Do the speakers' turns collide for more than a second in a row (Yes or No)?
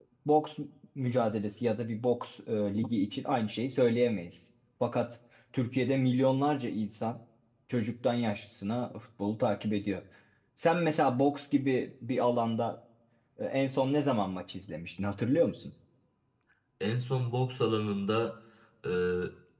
No